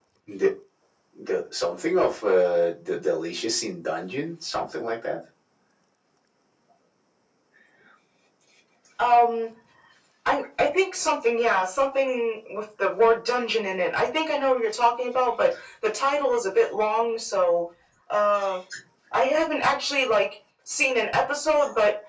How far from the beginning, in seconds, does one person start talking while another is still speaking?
none

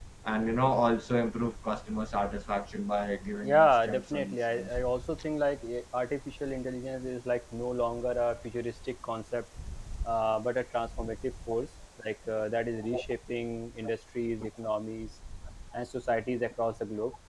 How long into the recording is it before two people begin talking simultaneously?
3.4 s

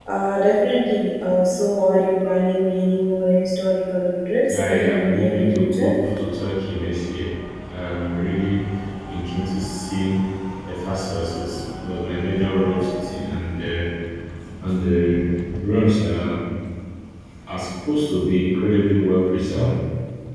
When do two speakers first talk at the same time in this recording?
4.5 s

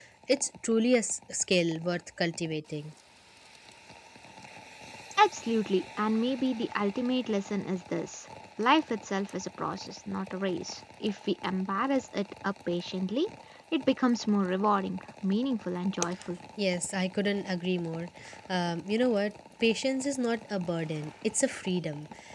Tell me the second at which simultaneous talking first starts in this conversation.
none

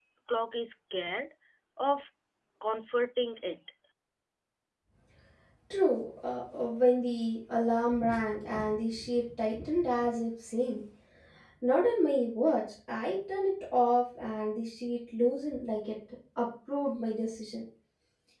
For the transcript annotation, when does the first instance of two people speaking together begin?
none

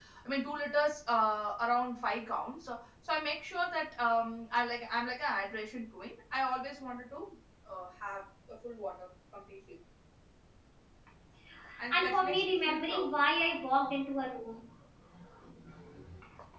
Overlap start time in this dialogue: 11.9 s

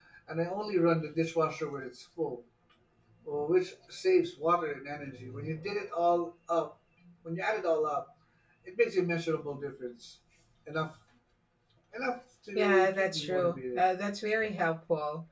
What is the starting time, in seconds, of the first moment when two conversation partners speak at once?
12.6 s

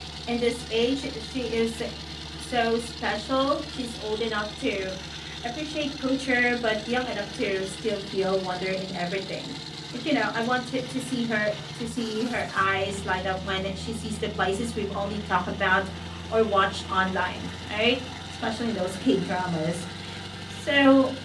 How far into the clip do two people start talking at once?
none

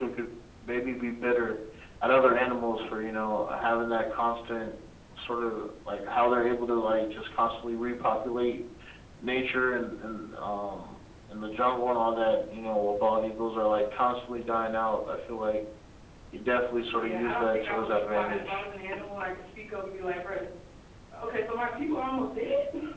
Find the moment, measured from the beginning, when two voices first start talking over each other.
17.0 s

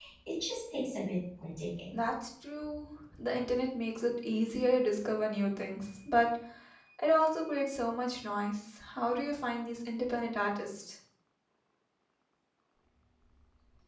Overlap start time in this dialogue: none

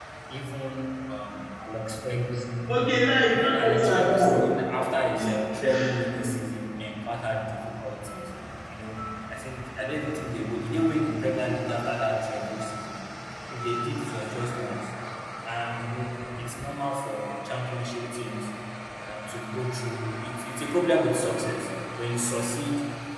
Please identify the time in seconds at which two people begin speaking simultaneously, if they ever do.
3.3 s

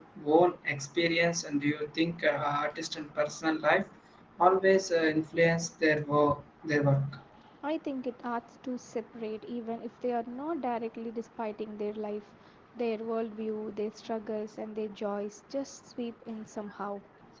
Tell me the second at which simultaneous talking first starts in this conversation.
none

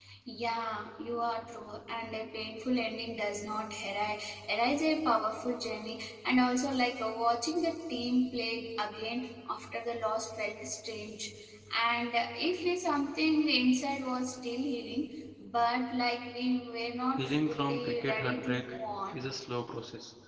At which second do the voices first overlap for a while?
17.2 s

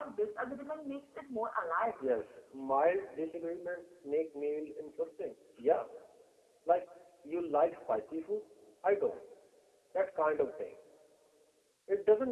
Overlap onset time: none

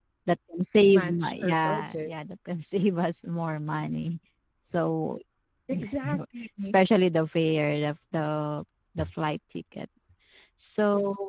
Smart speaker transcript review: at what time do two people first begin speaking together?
0.9 s

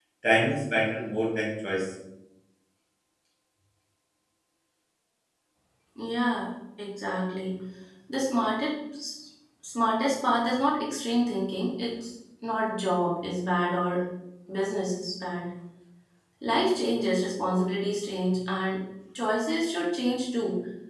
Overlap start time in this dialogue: none

